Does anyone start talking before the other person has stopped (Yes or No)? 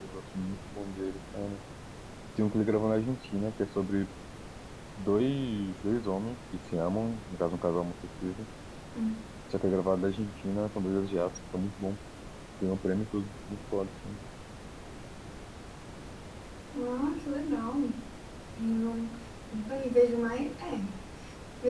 No